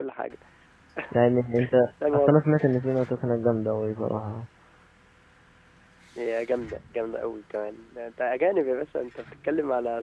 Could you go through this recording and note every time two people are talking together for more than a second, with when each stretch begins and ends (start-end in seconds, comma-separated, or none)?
none